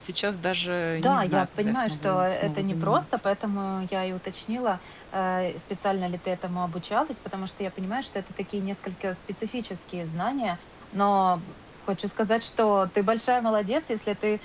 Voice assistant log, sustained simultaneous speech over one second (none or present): present